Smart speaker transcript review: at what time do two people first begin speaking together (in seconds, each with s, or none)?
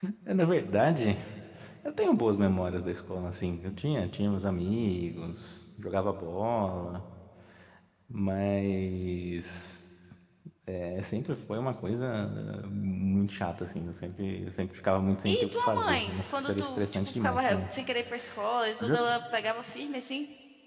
15.2 s